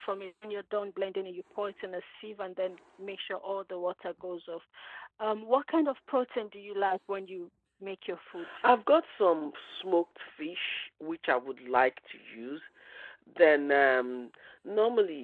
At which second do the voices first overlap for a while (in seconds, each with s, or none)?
none